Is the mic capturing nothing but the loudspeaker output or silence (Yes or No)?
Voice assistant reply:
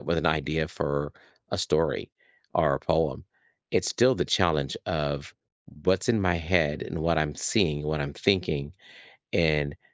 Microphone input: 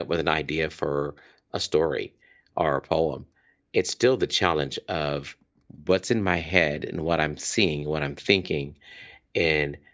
Yes